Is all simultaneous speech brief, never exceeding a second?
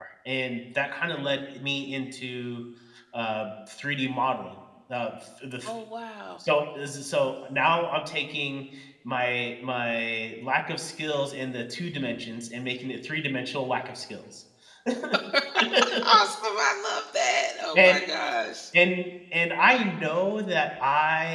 Yes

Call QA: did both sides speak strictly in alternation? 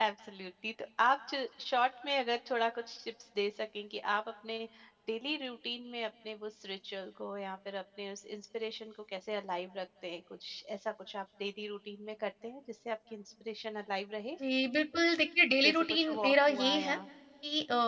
No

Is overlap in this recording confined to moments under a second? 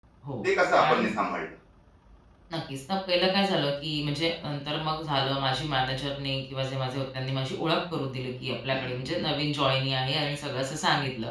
Yes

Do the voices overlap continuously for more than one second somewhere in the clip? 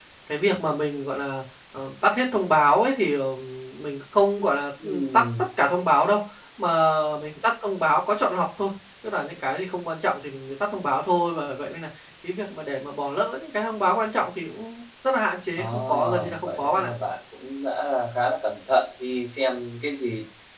Yes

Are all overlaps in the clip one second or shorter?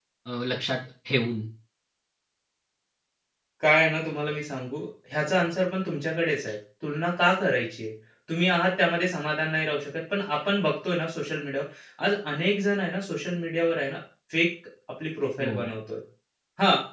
Yes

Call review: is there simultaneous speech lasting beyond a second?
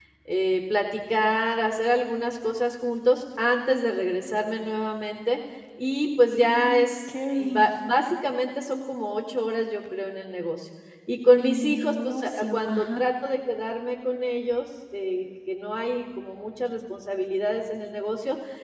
Yes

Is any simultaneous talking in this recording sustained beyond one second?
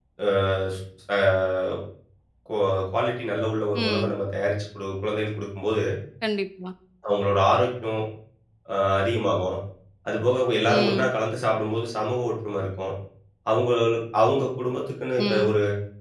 No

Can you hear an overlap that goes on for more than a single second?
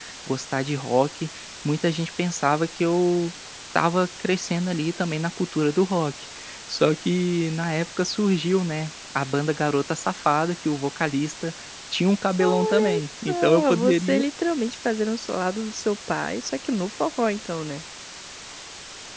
Yes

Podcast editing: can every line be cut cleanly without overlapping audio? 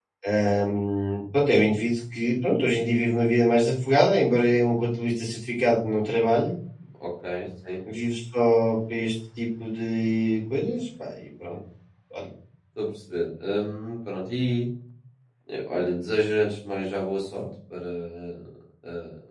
Yes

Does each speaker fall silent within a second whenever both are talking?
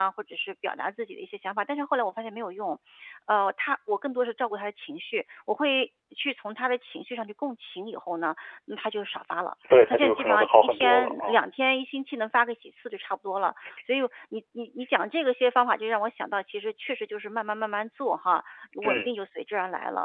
No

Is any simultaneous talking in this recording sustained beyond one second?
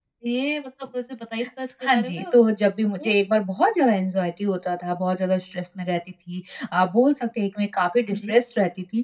No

